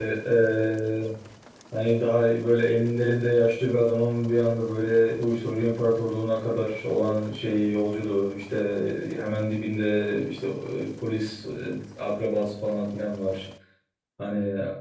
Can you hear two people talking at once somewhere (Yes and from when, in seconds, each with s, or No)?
No